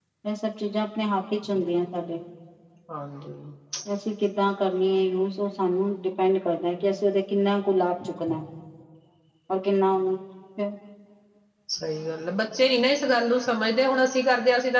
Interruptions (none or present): none